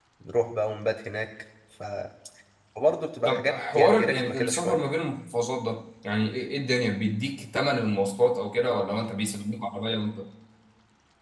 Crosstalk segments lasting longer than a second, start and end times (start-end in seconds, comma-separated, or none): 3.2-4.8